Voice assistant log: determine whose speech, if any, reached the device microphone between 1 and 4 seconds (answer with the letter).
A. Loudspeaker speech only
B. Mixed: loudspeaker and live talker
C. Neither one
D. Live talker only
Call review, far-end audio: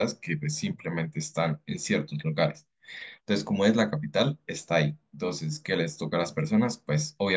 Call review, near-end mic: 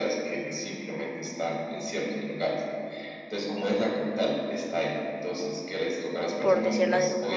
A